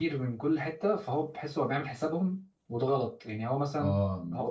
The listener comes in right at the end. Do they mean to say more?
No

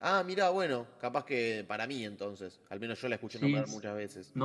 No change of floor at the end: No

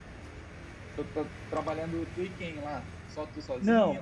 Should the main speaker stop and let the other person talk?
Yes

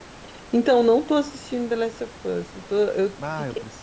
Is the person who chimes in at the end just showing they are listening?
No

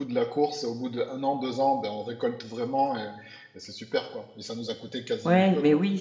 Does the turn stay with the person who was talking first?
No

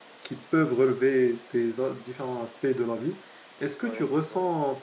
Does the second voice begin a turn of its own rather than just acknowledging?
No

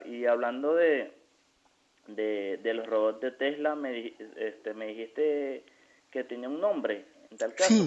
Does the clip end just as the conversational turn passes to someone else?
No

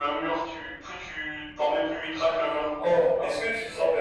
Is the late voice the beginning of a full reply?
Yes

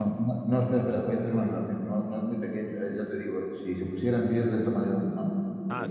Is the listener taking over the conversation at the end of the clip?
Yes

